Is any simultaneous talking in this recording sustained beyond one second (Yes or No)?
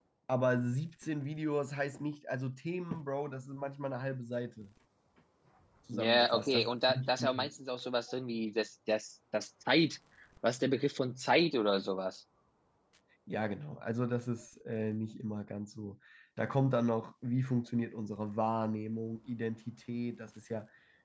Yes